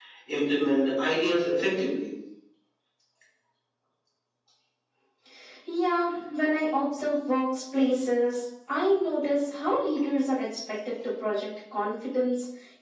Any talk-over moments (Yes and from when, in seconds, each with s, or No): No